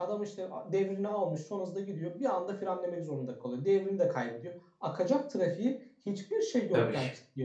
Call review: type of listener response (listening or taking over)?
listening